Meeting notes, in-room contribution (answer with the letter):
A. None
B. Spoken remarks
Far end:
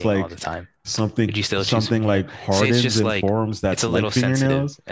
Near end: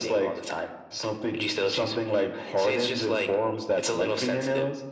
A